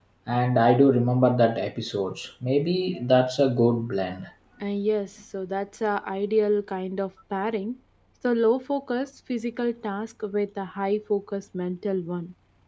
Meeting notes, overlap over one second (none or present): none